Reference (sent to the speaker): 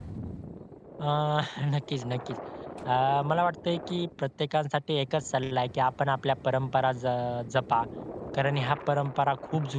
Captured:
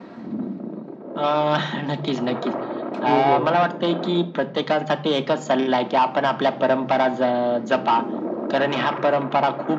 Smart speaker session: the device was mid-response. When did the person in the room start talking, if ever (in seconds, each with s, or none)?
3.1 s